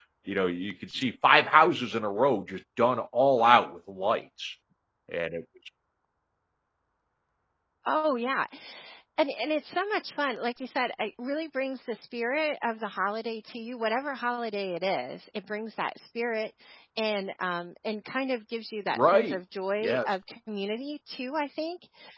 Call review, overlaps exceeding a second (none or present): none